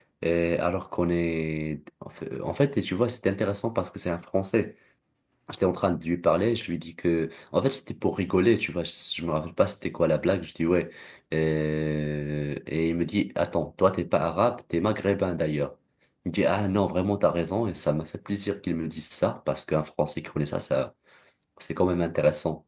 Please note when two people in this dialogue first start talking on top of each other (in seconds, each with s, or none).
none